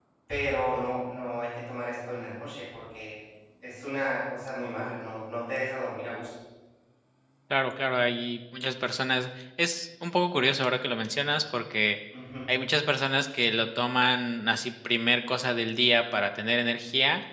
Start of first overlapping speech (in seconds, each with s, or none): none